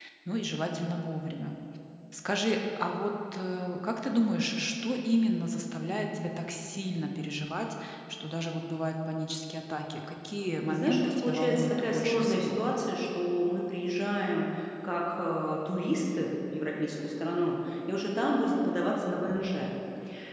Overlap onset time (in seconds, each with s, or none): 10.7 s